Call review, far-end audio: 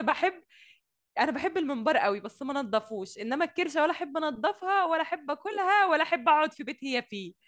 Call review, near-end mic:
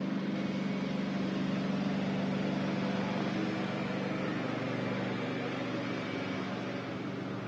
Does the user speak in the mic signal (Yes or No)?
No